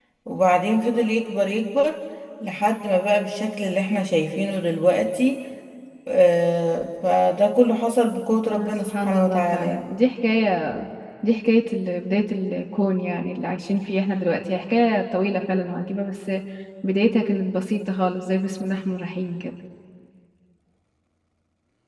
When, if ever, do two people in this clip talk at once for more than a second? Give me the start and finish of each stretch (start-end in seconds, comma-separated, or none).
8.6-9.8